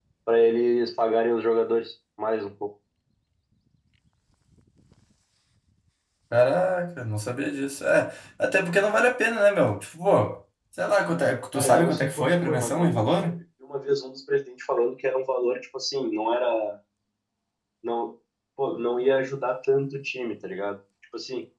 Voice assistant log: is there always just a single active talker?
No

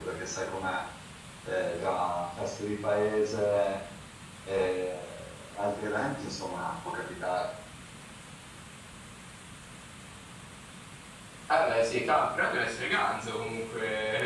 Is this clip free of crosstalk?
Yes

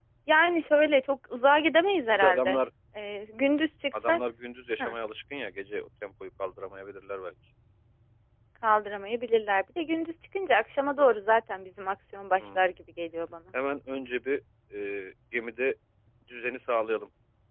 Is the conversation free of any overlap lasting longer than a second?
Yes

